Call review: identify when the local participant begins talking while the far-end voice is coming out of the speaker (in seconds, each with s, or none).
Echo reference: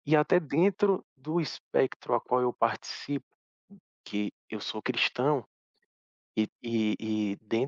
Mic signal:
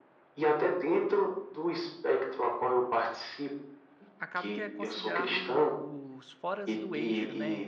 4.2 s